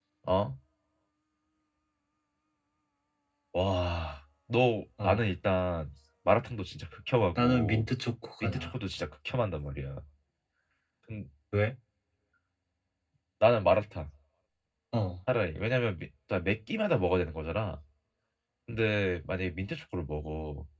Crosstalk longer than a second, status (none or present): none